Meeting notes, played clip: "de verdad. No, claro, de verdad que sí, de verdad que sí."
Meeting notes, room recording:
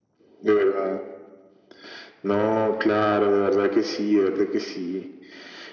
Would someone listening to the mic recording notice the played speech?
Yes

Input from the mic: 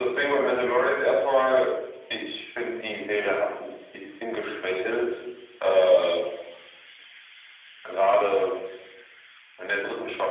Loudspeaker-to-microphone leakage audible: Yes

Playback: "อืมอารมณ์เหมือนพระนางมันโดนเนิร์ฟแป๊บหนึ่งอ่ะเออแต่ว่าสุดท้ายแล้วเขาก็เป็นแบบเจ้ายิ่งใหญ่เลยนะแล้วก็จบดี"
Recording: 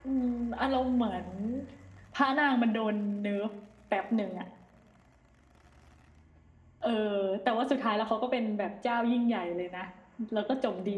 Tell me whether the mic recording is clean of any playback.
No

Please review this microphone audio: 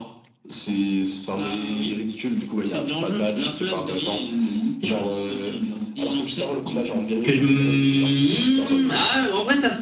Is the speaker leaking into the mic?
Yes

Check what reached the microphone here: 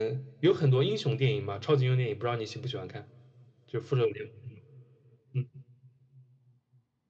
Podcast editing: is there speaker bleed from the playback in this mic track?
Yes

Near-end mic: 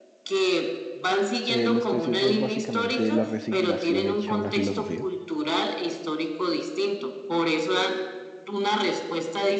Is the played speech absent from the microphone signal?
No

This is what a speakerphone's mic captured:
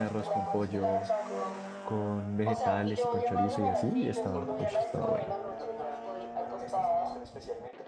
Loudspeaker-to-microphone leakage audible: Yes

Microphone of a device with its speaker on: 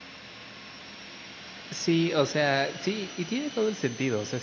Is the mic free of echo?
Yes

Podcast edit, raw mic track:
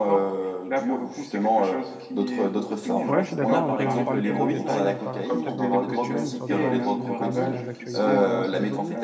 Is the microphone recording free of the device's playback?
No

